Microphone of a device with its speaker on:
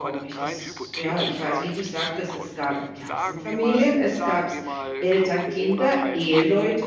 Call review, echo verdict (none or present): present